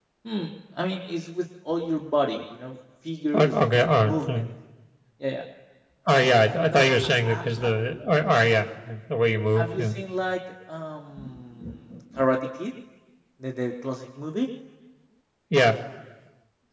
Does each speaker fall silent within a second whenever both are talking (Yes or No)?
No